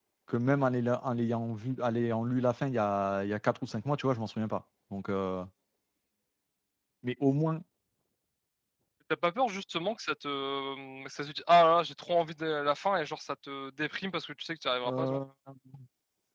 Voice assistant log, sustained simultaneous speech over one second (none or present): none